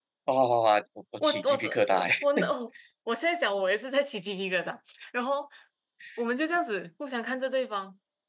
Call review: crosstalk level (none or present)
present